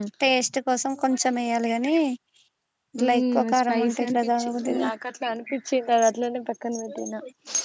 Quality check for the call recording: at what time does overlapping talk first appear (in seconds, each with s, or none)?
3.0 s